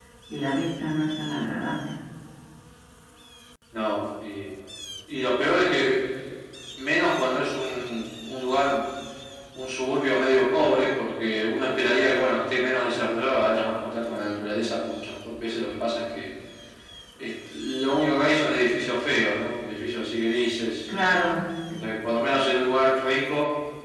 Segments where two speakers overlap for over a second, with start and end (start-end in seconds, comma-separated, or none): none